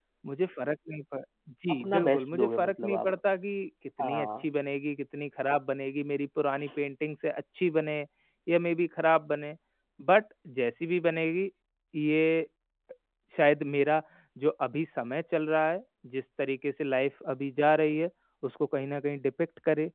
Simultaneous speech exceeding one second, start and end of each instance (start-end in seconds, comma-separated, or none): 1.7-3.1